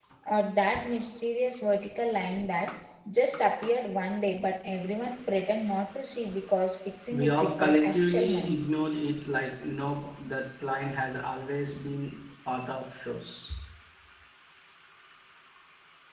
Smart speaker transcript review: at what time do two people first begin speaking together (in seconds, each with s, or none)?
7.1 s